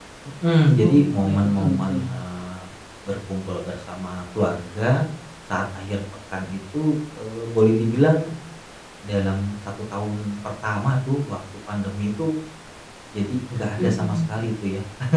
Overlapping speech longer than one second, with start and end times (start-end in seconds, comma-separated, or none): 0.8-2.0